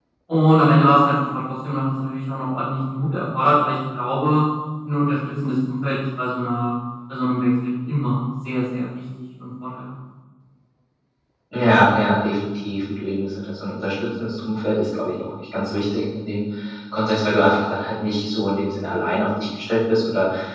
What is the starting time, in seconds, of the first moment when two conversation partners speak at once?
none

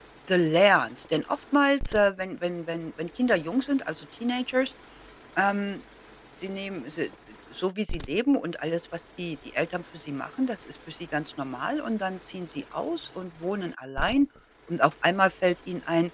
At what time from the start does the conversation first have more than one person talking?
none

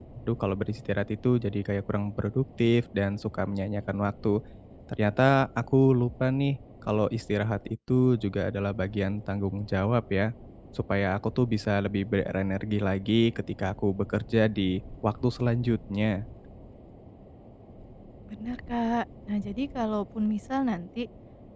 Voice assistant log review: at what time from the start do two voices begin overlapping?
none

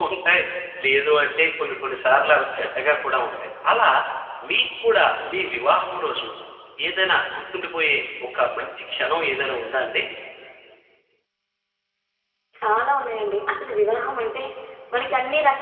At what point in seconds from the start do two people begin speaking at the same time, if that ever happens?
none

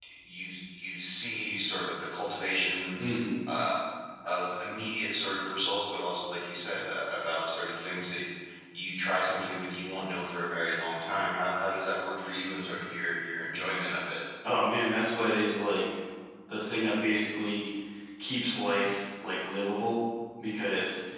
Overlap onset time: none

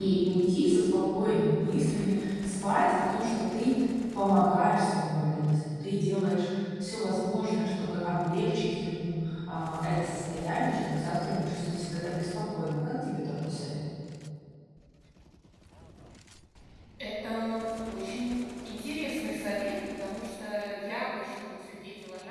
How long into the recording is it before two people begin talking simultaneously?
none

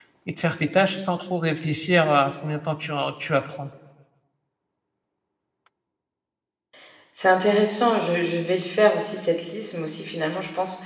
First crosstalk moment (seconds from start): none

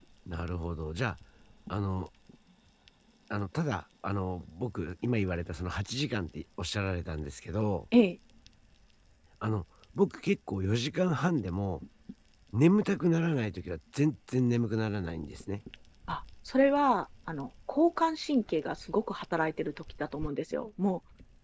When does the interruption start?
none

